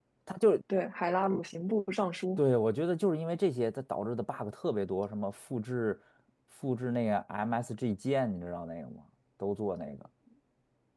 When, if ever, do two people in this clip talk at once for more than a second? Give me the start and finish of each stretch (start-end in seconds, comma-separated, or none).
none